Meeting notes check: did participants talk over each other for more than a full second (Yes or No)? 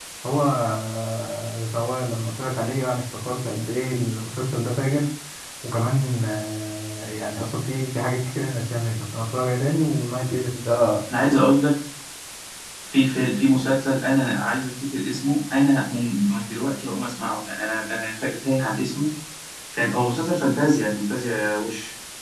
No